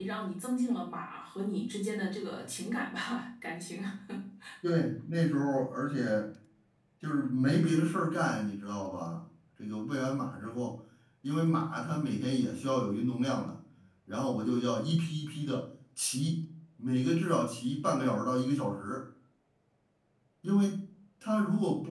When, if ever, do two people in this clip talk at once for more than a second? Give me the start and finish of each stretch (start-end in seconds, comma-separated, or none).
none